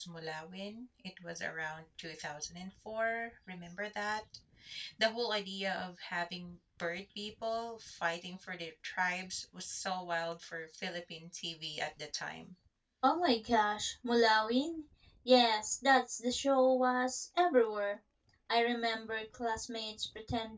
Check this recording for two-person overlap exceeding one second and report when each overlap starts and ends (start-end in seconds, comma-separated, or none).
none